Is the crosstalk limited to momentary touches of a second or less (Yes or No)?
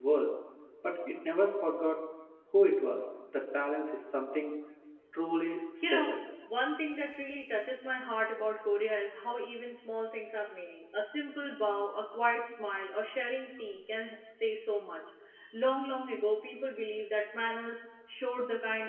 Yes